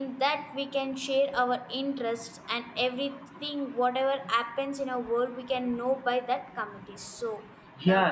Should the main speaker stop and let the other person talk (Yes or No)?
Yes